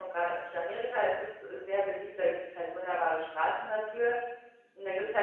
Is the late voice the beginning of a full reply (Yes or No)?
No